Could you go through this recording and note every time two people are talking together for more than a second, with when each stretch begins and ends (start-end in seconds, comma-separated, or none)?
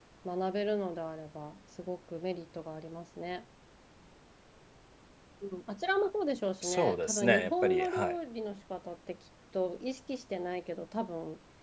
6.6-8.2